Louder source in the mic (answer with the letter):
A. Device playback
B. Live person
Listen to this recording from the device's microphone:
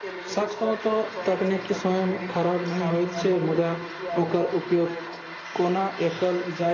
B